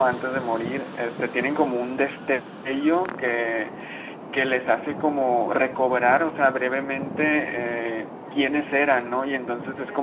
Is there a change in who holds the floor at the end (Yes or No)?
No